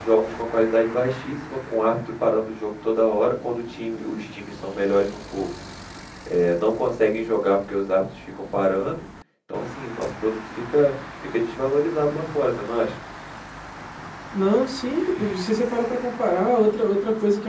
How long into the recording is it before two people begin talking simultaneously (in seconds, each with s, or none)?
none